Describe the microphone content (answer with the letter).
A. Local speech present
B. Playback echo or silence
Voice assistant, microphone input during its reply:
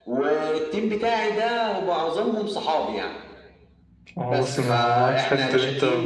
A